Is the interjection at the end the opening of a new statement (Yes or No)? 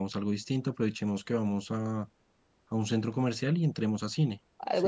Yes